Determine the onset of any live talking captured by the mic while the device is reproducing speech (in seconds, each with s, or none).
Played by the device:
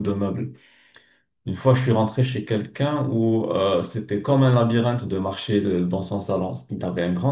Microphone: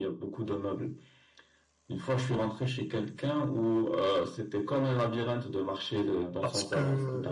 6.4 s